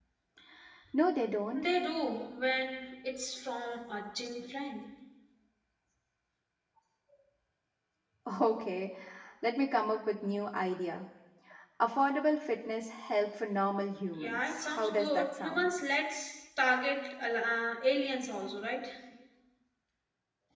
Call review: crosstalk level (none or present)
present